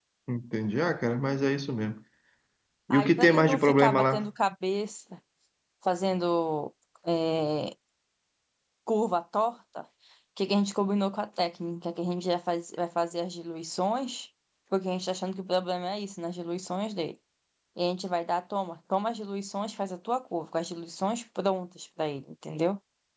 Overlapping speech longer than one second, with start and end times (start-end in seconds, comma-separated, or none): 2.9-4.3